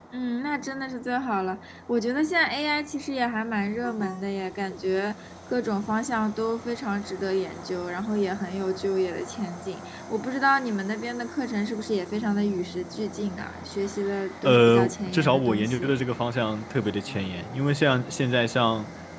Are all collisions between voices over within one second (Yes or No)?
No